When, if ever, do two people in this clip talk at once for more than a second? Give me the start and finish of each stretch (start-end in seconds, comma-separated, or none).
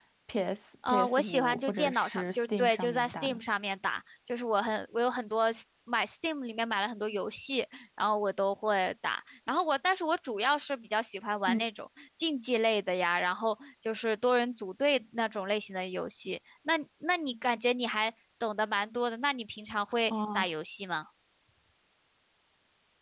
0.9-3.4